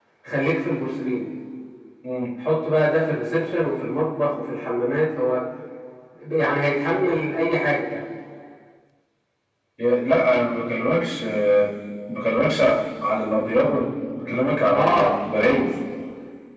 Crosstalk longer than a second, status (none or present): none